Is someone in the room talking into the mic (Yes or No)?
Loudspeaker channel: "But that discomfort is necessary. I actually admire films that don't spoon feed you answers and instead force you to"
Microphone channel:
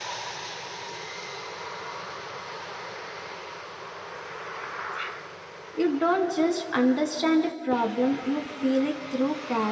Yes